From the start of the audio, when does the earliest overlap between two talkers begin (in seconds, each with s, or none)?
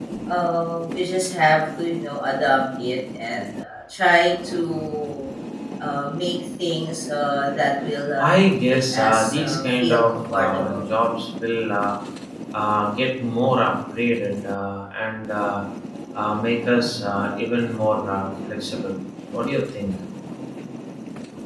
8.2 s